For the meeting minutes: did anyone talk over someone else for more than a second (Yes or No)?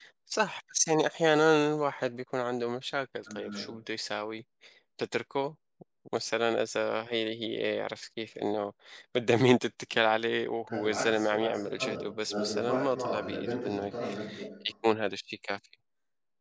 Yes